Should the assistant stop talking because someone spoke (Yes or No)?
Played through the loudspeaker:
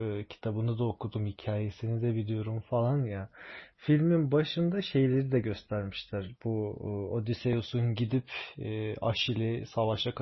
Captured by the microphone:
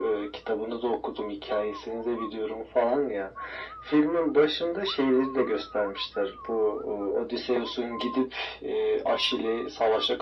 No